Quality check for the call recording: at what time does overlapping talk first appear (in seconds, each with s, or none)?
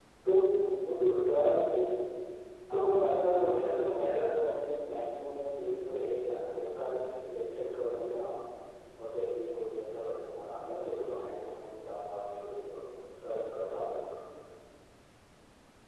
2.7 s